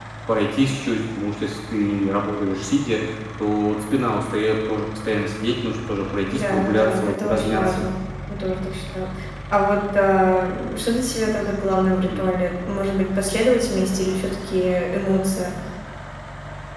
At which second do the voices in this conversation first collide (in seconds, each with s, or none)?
6.3 s